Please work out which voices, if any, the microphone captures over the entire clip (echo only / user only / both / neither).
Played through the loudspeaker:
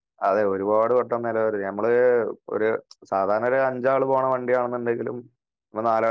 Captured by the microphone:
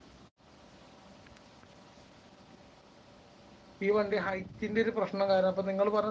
user only